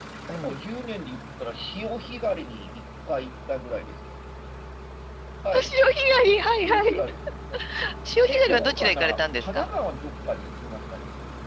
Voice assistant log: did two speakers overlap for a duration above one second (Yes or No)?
Yes